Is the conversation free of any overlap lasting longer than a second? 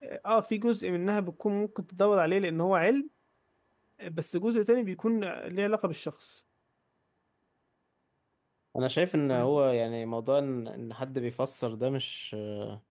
Yes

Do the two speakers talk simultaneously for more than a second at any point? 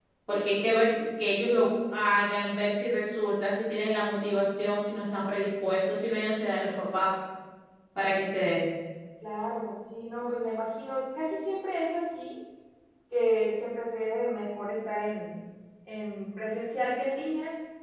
No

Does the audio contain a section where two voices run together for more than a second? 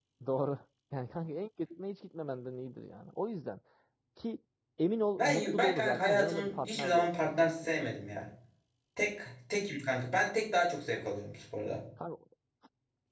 Yes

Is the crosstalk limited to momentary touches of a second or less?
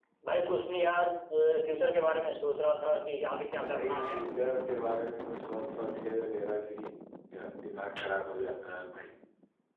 Yes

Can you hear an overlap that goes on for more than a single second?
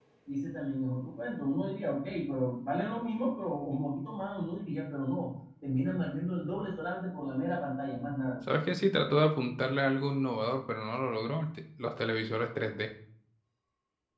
No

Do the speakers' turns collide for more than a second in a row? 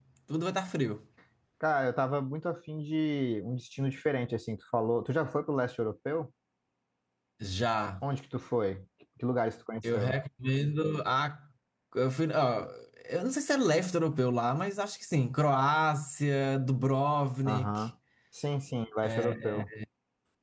No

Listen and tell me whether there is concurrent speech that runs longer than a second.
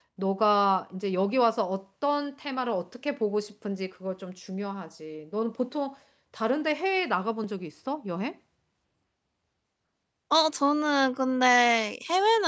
No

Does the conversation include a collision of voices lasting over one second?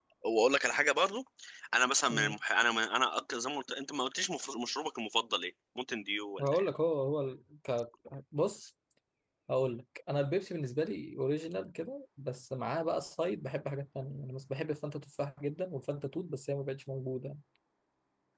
No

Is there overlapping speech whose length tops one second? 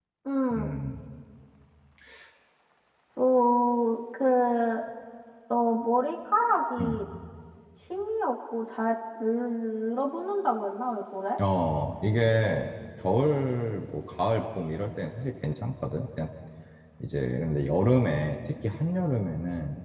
No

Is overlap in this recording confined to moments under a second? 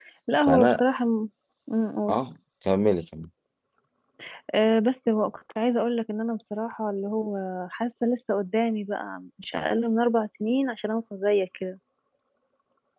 Yes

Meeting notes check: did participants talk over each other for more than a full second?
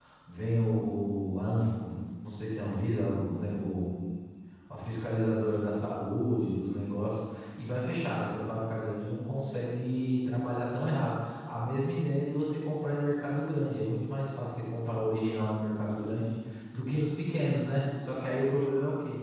No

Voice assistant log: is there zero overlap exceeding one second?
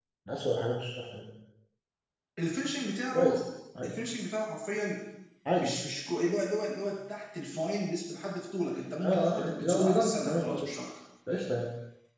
No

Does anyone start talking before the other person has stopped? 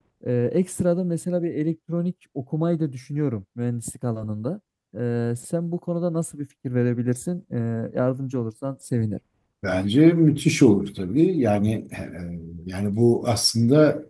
No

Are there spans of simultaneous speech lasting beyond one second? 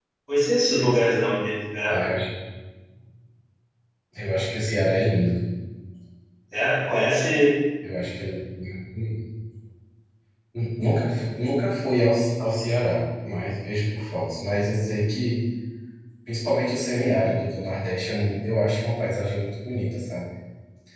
No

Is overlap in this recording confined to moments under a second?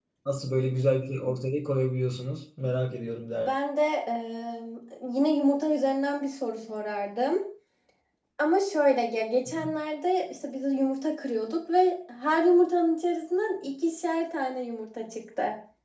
Yes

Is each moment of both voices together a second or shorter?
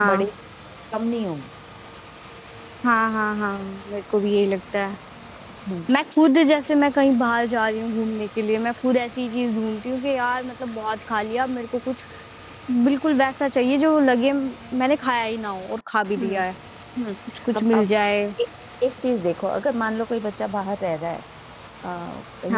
Yes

